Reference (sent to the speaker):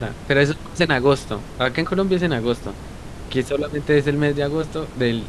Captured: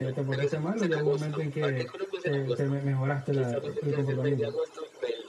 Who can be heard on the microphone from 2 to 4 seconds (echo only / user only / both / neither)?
both